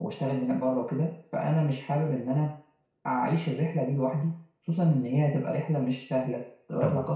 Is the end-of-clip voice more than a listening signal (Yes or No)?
No